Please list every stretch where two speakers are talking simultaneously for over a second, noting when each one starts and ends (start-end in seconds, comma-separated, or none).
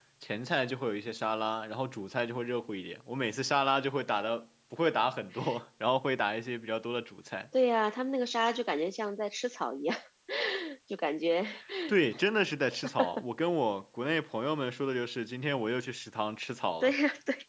none